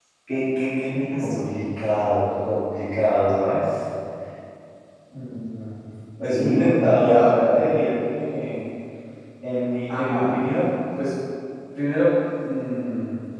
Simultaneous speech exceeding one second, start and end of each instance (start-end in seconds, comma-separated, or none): 6.3-7.6